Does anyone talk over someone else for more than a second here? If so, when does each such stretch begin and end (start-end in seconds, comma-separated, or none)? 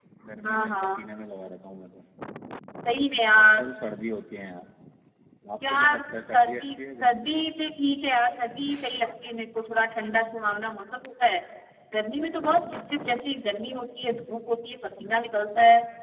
5.6-7.3